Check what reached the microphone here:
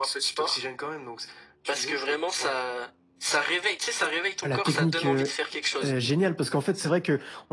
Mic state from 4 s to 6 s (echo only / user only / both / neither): both